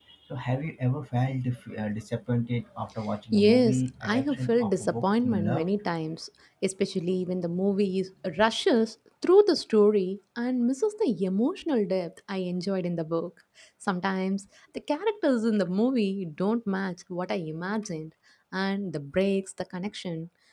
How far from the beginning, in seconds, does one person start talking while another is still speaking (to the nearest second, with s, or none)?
3 s